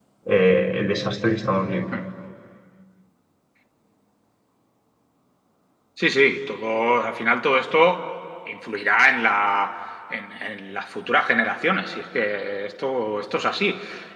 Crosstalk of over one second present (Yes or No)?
No